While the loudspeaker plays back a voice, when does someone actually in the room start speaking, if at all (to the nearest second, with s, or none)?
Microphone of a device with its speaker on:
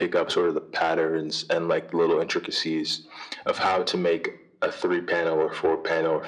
none